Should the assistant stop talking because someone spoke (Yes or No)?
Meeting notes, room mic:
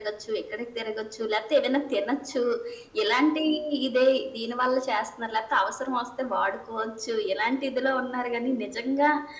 No